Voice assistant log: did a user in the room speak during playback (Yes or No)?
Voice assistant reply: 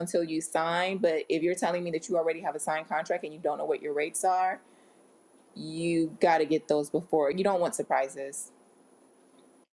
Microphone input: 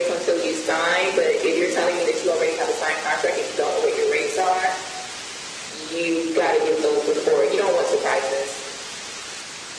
No